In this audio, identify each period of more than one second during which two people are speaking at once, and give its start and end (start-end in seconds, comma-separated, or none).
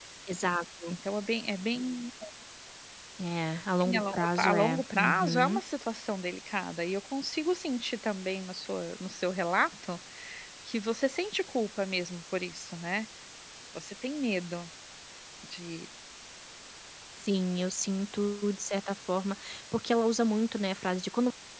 3.8-5.6